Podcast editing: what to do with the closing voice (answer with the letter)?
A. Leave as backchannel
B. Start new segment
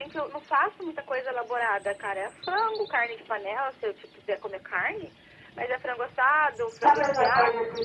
B